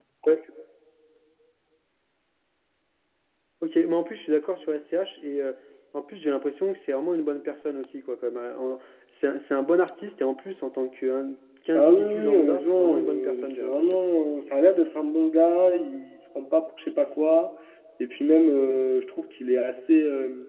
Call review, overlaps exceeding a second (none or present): present